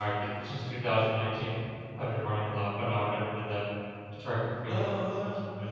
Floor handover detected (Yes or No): Yes